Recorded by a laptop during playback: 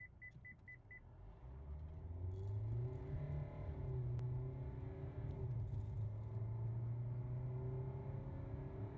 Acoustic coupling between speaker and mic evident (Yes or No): No